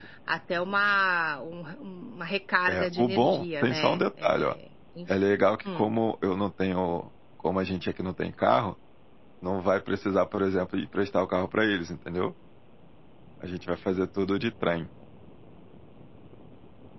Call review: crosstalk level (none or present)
present